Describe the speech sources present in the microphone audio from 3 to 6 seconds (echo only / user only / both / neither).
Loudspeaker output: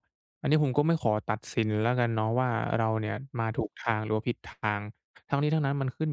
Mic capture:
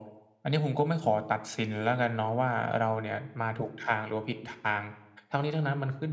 echo only